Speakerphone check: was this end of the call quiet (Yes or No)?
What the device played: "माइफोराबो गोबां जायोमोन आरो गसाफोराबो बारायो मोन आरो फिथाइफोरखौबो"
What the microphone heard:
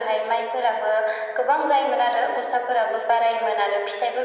Yes